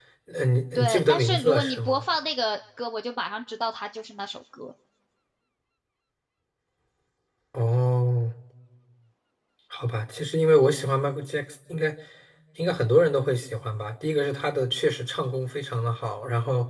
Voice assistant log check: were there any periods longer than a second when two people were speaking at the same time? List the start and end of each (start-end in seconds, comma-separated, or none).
0.8-2.0